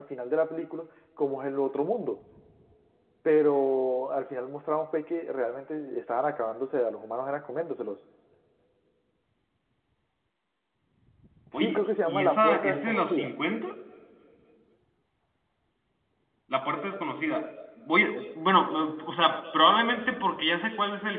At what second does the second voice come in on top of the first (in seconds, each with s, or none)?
11.5 s